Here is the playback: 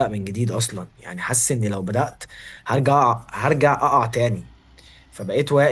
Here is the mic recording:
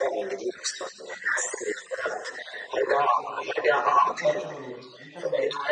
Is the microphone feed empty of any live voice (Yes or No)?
No